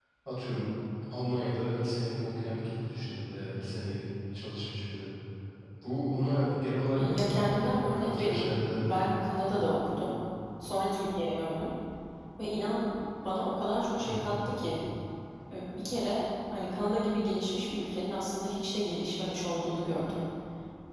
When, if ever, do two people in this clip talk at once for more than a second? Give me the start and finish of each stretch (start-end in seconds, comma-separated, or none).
7.0-9.1